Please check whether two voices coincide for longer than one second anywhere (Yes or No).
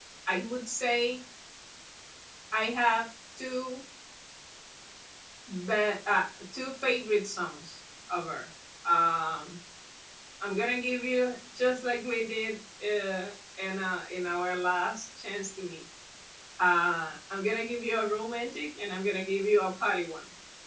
No